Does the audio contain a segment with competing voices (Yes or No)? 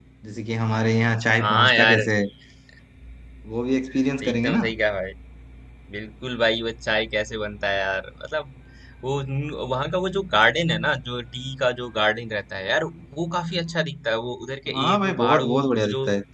Yes